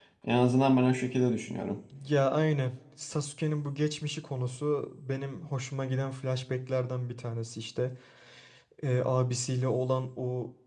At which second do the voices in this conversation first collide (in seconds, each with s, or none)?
none